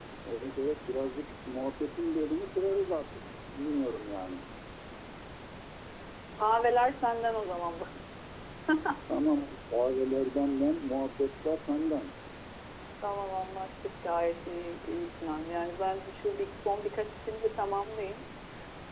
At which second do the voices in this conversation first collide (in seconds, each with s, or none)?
none